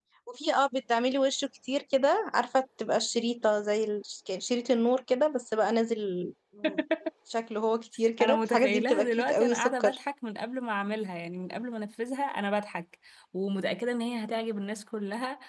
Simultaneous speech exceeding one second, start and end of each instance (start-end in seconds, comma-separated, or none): 8.2-10.0